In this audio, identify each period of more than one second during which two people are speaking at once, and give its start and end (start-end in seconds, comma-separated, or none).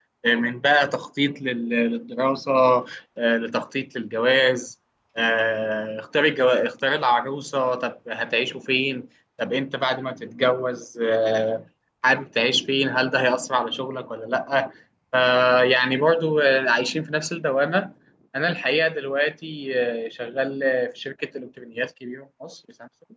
none